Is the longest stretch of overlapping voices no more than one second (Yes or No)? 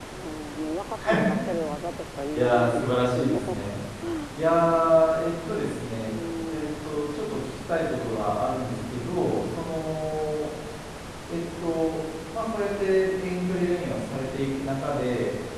No